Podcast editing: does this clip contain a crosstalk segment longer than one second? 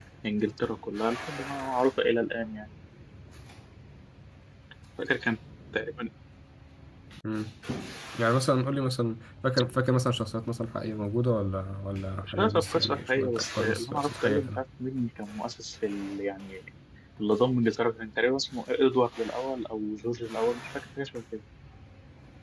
Yes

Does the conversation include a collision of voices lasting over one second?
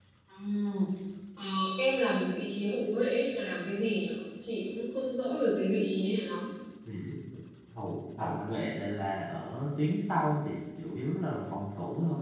No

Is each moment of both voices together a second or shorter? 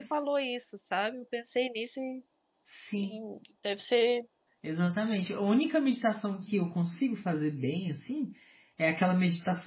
Yes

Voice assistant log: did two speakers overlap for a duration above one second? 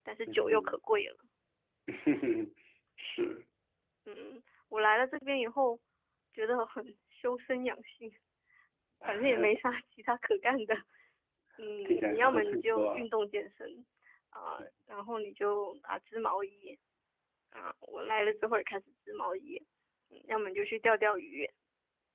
Yes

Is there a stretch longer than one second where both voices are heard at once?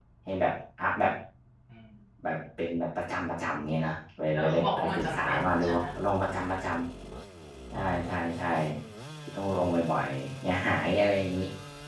Yes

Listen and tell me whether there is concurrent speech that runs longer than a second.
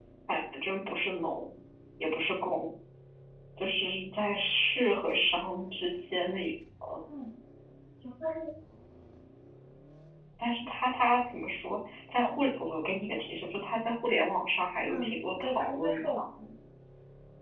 Yes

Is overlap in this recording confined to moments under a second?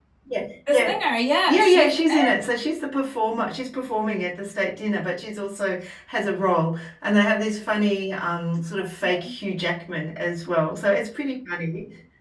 Yes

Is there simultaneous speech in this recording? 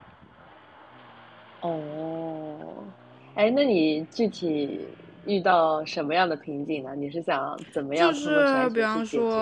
Yes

